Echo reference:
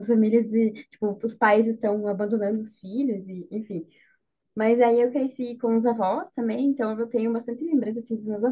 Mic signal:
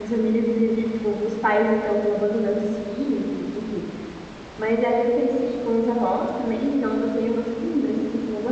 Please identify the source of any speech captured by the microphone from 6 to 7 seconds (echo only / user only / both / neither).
echo only